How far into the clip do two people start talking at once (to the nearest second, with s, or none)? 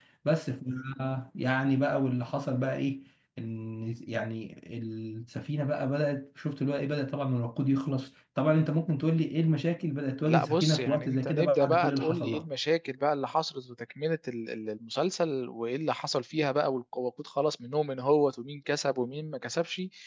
10 s